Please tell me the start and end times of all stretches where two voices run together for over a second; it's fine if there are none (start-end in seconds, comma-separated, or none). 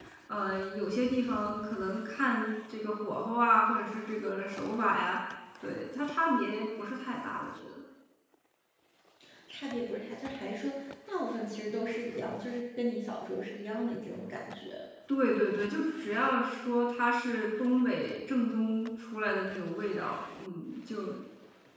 none